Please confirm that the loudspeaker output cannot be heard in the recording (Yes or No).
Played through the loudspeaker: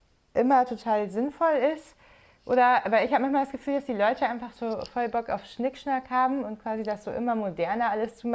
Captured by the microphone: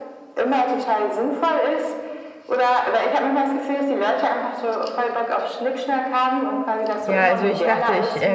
No